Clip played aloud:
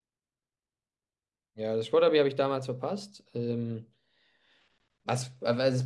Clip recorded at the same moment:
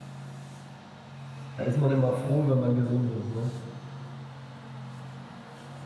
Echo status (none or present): none